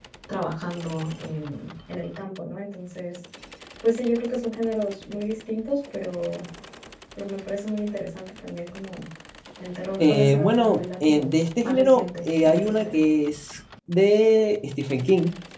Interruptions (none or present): present